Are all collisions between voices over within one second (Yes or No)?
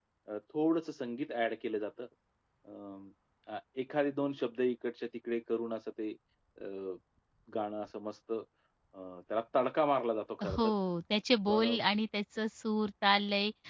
Yes